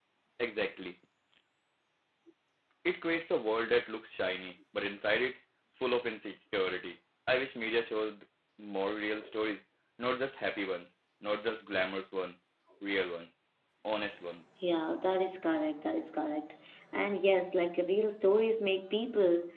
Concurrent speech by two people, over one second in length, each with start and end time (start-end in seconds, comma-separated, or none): none